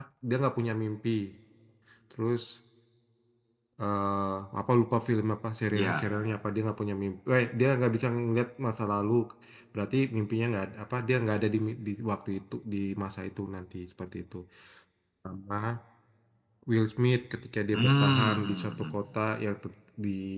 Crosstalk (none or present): present